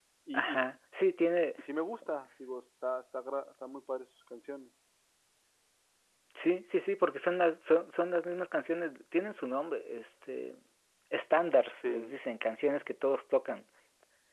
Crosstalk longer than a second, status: none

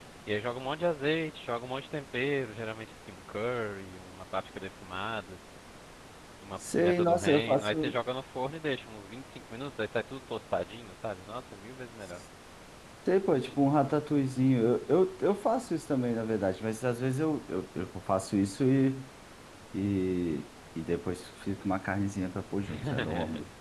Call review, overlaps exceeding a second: present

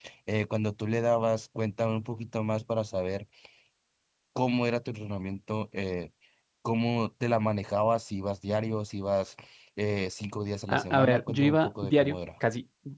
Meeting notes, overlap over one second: present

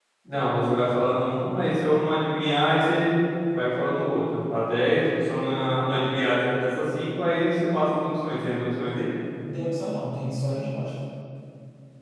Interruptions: none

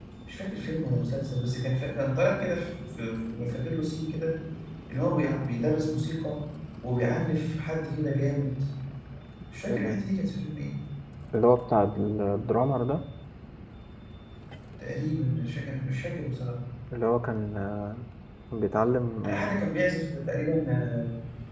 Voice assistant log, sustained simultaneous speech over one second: none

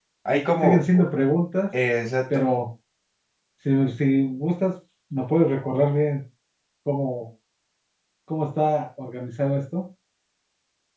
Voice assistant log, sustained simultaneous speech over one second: none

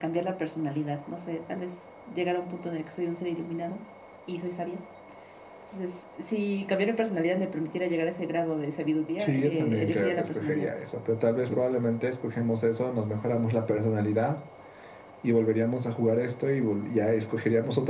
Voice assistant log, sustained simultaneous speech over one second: present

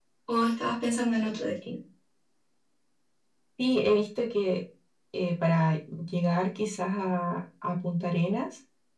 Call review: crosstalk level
none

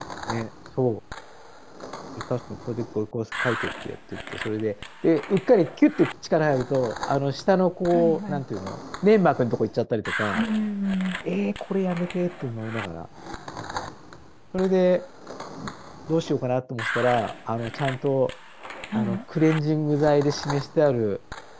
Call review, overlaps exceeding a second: none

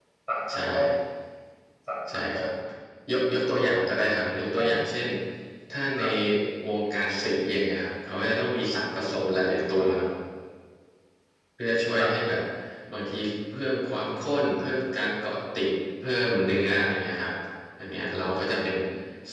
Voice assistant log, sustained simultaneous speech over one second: none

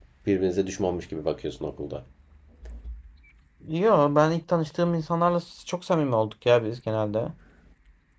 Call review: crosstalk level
none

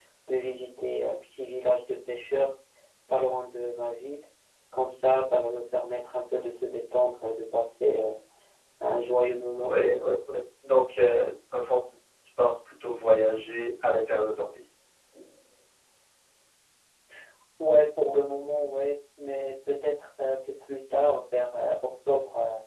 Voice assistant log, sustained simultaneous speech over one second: none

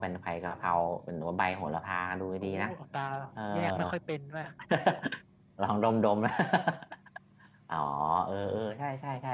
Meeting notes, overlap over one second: none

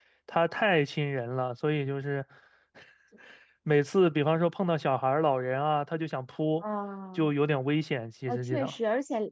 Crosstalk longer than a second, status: none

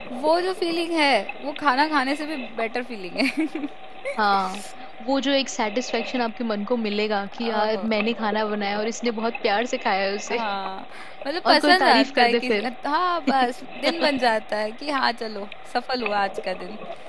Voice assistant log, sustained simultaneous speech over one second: present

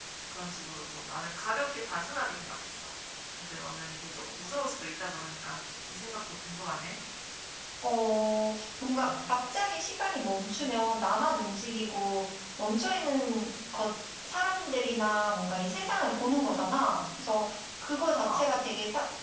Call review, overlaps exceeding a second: none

